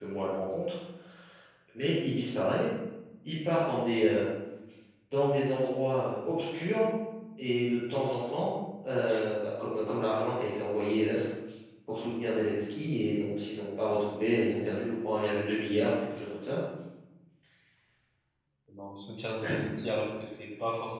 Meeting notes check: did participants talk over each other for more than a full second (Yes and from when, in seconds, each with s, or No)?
No